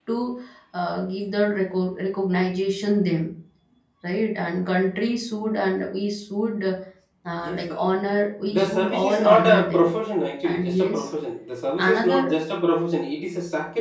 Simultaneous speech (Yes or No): Yes